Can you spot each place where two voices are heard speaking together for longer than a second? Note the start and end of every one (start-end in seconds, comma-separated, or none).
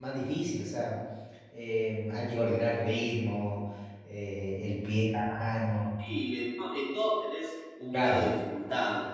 none